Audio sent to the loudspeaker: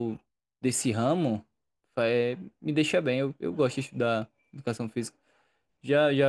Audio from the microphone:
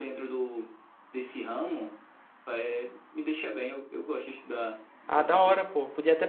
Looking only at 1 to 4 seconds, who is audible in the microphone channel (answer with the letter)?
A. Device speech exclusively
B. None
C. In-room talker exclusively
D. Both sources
A